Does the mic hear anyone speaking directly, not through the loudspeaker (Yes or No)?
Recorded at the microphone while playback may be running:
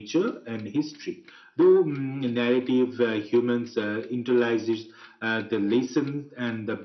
No